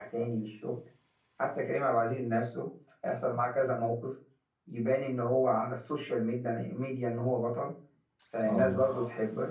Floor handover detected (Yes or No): No